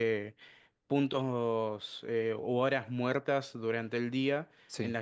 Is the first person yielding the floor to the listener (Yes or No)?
No